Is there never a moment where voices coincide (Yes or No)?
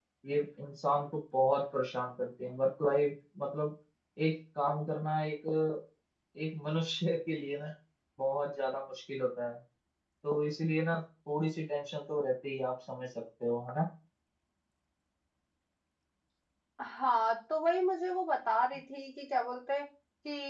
Yes